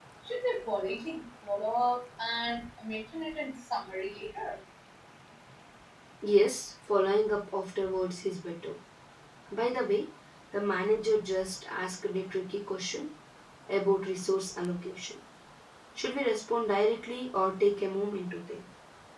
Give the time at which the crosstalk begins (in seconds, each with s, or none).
none